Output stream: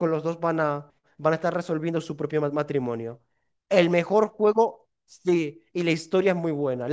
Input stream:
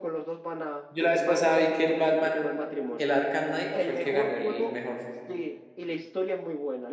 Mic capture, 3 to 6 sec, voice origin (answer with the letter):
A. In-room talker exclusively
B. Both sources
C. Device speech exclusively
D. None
B